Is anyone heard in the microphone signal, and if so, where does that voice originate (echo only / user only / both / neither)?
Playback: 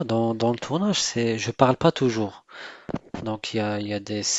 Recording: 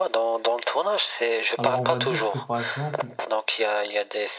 both